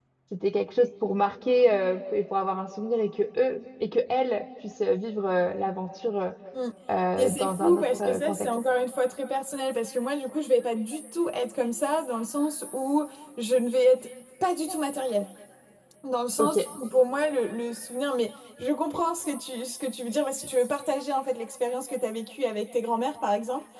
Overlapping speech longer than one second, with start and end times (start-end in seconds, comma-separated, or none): 7.2-8.5